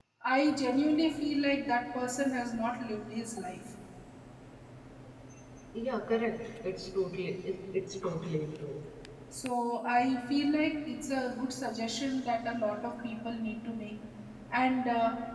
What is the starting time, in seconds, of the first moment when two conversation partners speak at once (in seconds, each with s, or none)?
none